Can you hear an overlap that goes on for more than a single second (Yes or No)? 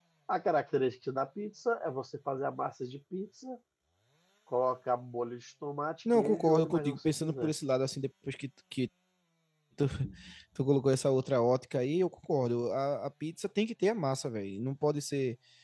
Yes